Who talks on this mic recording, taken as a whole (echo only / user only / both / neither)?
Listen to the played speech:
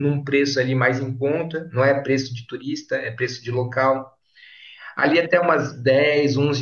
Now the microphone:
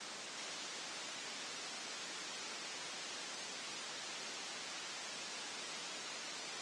neither